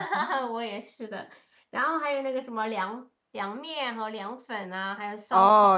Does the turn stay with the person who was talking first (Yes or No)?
No